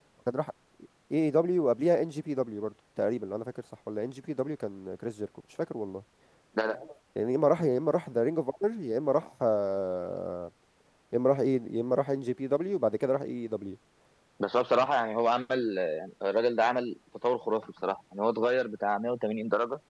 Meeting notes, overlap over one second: none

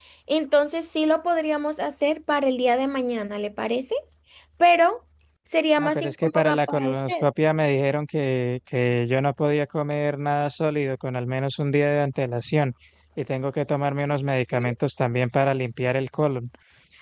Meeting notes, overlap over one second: present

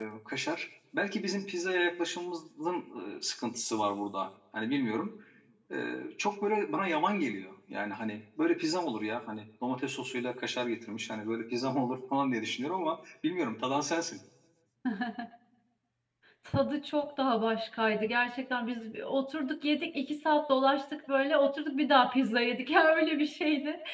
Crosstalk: none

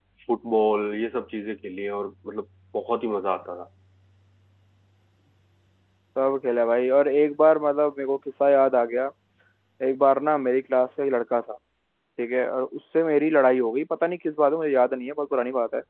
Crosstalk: none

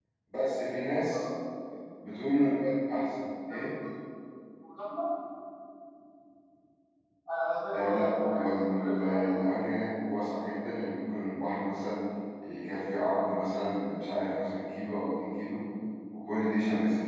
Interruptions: present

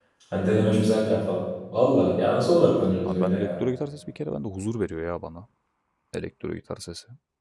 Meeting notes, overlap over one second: none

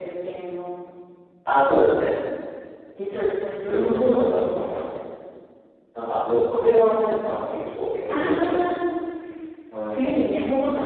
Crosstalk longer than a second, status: present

